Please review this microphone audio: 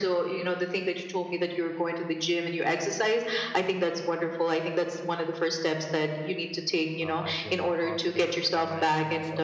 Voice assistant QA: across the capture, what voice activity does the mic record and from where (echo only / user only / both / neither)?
both